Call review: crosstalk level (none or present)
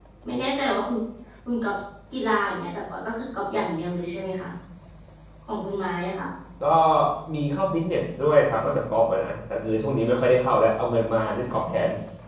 none